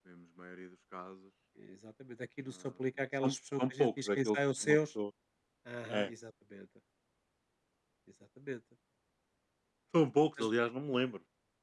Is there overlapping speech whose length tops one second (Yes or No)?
Yes